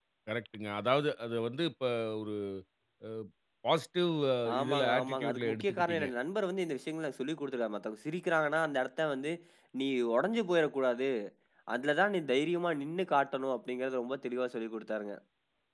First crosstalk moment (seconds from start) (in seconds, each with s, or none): 4.5 s